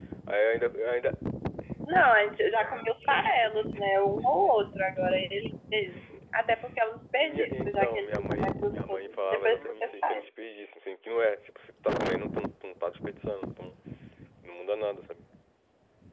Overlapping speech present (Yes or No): Yes